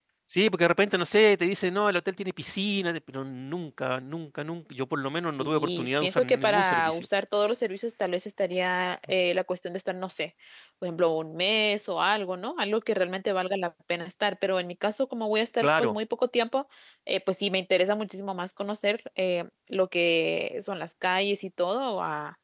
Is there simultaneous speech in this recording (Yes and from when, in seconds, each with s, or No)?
Yes, from 5.3 s